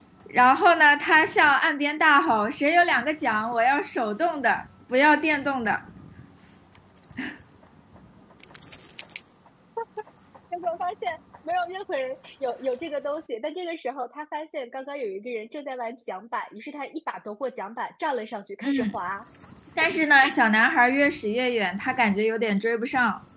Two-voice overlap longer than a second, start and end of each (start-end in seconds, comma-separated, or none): none